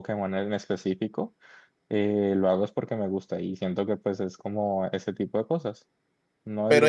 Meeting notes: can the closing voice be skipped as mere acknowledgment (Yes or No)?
No